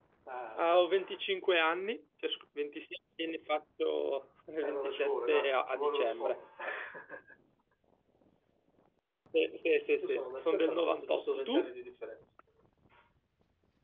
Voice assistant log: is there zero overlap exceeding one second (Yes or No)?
No